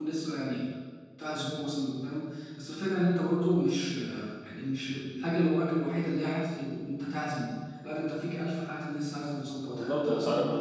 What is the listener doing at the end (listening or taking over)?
taking over